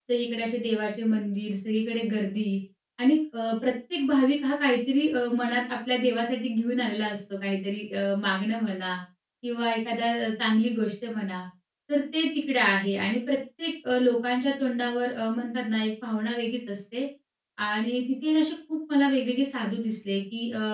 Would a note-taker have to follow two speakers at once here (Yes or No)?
No